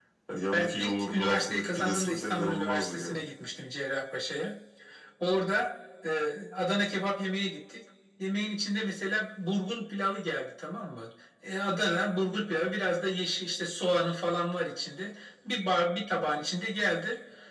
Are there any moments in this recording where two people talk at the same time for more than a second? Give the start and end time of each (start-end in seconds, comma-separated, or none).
0.5-3.2